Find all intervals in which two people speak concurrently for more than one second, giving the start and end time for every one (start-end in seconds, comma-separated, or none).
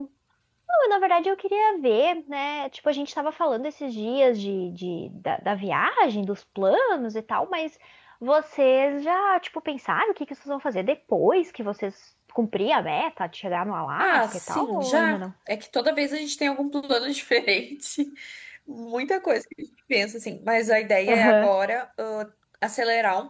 14.0-15.2